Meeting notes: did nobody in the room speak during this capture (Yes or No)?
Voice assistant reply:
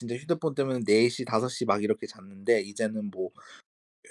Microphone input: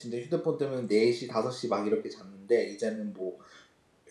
Yes